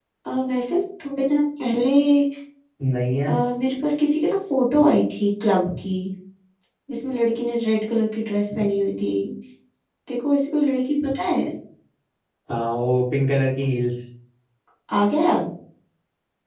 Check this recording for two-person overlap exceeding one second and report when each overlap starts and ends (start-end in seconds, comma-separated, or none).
none